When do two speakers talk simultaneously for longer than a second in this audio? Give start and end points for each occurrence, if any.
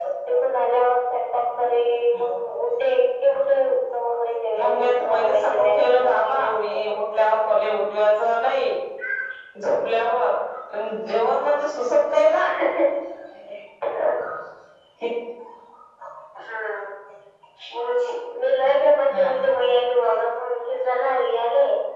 4.6-6.9

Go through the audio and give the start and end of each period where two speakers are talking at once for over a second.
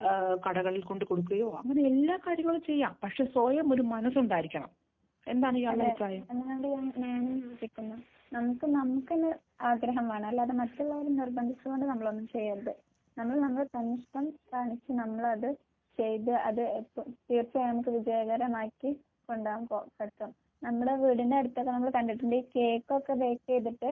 none

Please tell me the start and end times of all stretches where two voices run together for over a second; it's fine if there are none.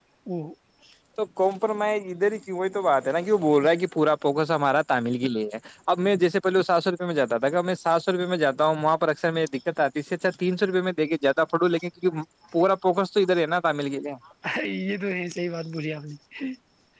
none

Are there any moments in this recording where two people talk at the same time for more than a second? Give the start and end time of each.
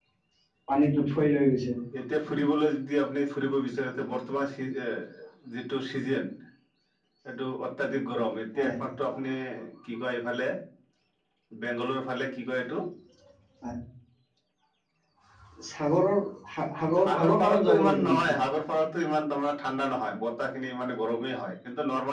17.0-18.2

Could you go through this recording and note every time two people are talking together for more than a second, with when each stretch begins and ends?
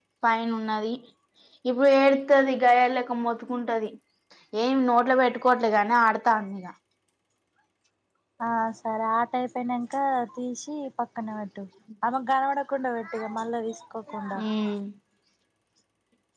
none

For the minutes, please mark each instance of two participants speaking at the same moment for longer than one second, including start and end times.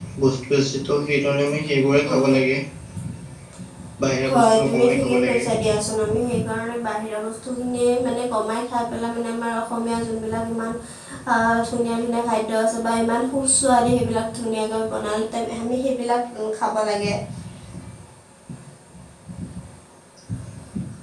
4.3-5.5

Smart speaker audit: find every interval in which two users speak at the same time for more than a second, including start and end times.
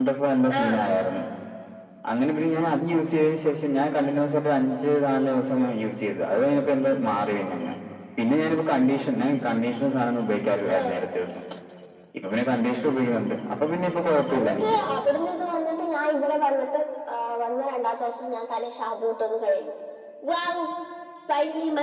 none

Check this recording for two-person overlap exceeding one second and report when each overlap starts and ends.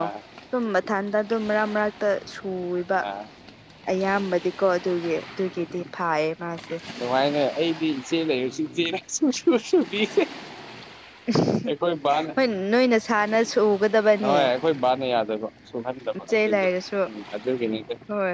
none

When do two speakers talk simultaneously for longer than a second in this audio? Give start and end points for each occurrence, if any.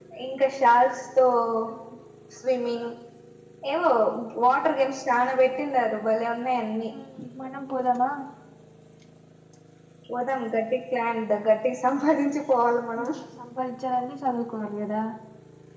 none

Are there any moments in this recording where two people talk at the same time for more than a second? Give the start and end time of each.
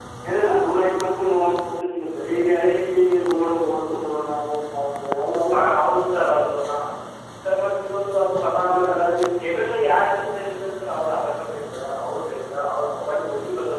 none

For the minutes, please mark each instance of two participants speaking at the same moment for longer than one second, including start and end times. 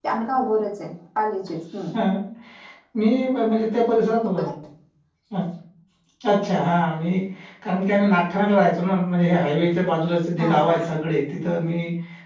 none

